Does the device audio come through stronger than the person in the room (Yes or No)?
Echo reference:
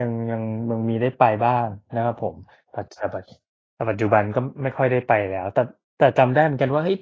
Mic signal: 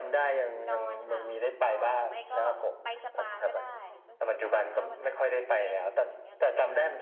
Yes